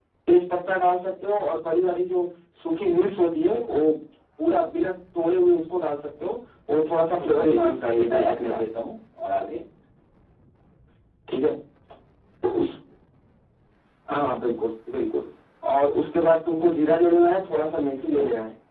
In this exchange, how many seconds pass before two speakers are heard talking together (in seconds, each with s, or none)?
7.2 s